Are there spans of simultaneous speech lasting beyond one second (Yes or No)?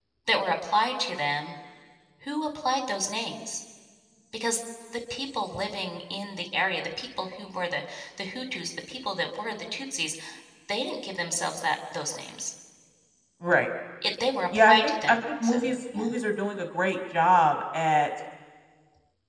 Yes